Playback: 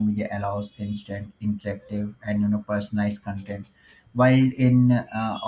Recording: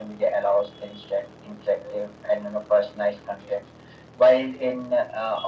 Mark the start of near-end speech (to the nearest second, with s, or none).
none